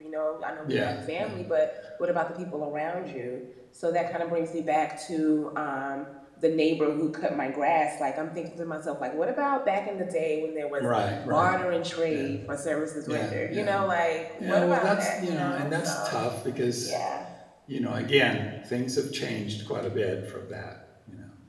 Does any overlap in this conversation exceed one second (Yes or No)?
Yes